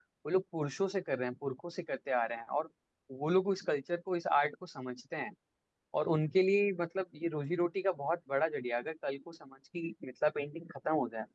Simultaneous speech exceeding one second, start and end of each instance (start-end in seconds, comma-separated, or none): none